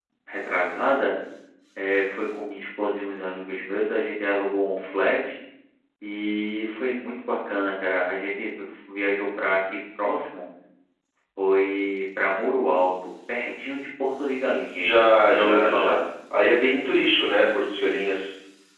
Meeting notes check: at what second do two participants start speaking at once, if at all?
15 s

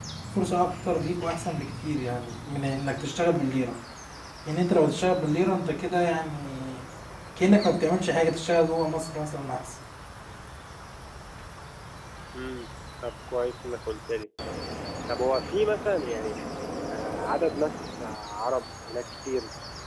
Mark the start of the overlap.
none

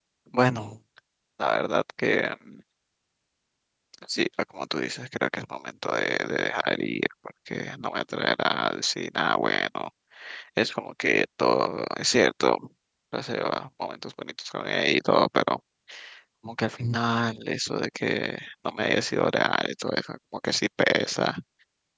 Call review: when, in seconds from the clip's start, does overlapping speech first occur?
none

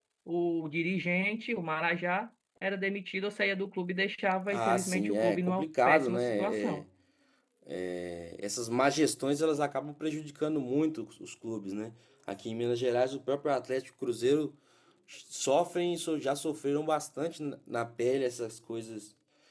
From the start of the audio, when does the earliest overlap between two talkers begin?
4 s

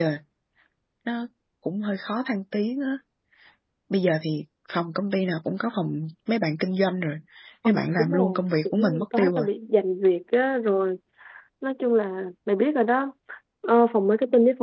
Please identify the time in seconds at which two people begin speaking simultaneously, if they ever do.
8 s

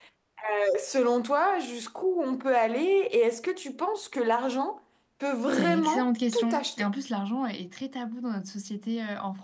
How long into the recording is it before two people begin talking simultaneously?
6 s

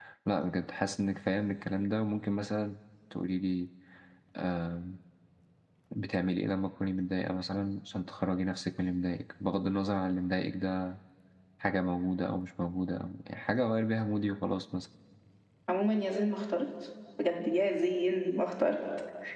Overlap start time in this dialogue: none

